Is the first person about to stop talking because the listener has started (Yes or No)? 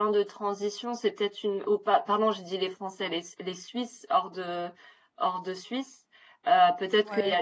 No